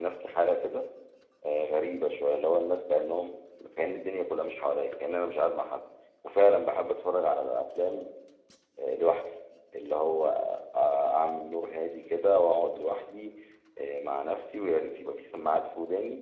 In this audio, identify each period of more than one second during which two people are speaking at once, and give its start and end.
none

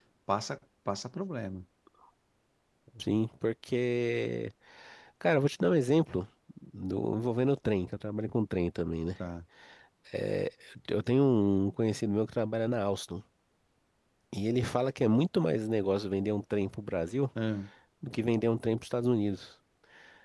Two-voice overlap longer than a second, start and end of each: none

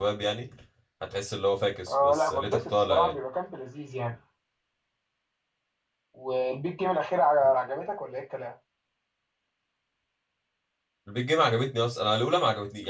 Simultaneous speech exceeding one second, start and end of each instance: 1.9-3.2

